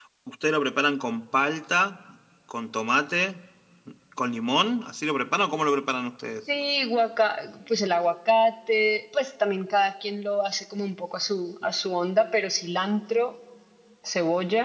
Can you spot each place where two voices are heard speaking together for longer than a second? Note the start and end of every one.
none

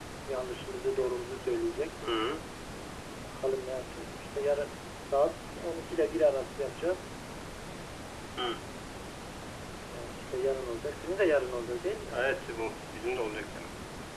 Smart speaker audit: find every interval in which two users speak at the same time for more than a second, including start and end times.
none

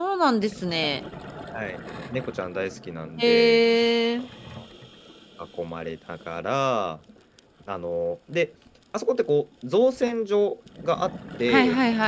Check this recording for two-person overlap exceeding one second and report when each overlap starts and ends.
none

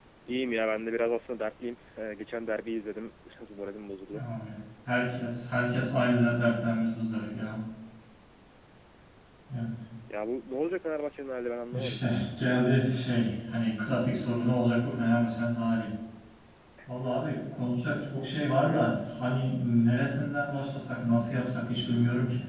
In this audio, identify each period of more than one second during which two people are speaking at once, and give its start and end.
none

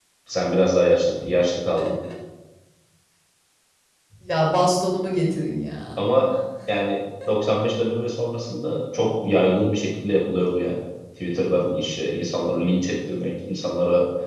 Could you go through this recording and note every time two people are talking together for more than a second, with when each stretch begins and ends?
none

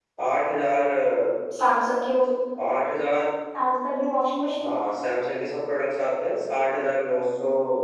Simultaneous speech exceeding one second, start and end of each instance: none

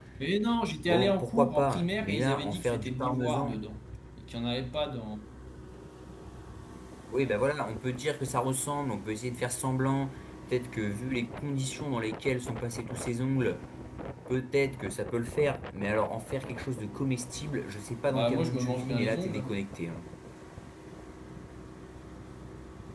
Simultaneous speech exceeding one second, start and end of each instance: 0.9-3.5, 18.0-19.6

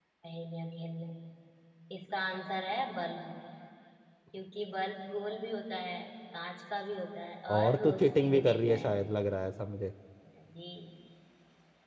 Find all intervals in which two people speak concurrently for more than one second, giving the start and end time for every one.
7.6-8.9

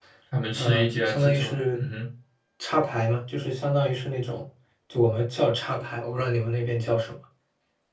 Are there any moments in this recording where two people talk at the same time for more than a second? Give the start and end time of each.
0.6-1.8

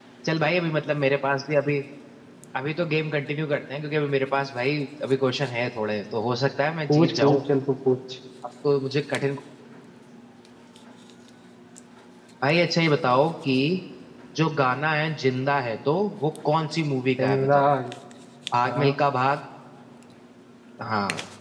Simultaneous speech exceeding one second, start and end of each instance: none

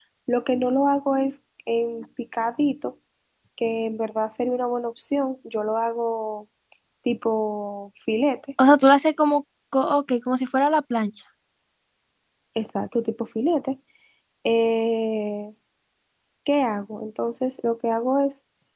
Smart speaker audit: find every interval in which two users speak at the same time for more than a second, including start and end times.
none

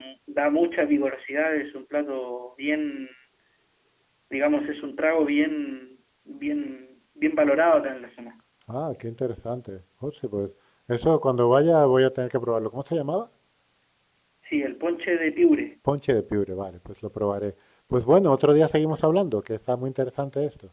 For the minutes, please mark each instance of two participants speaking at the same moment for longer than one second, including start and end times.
none

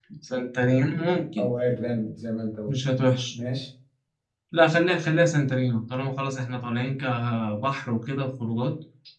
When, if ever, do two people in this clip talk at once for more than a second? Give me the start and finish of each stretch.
none

